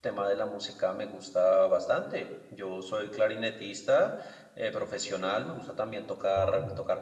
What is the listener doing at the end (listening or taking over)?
listening